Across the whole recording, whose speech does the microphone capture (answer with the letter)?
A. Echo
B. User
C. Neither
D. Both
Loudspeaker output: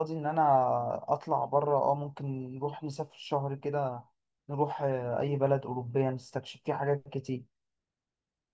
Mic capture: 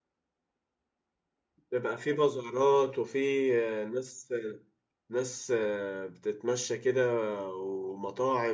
B